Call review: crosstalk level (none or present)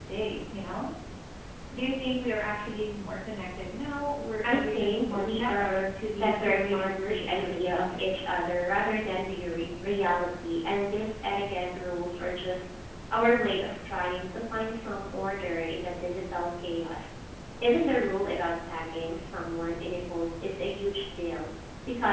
present